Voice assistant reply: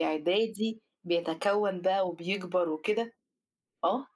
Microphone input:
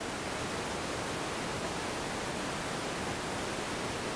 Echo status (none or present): none